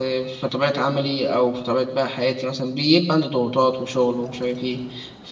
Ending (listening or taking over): listening